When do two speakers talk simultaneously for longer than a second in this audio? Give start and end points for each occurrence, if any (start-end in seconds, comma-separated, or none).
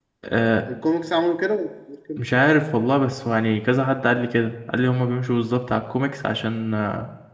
none